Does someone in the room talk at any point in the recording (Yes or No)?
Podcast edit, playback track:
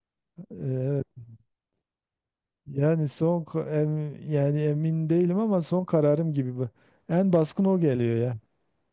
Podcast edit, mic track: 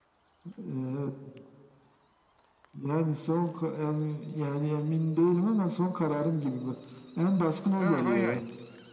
Yes